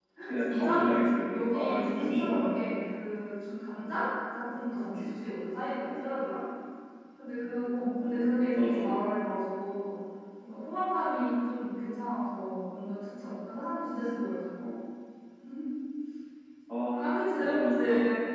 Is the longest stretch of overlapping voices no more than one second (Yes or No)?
No